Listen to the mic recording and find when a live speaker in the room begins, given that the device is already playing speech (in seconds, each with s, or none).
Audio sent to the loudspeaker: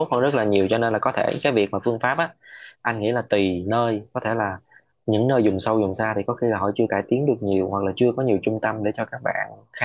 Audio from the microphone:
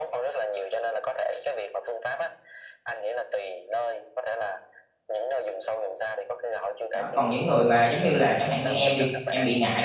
6.9 s